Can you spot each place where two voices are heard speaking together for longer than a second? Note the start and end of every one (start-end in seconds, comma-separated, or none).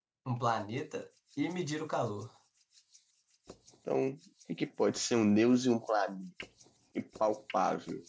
none